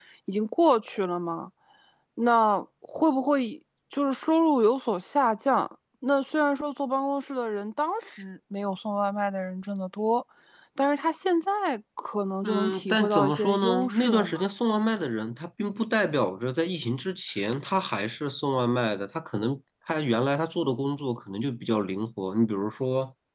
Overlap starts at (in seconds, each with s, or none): 12.4 s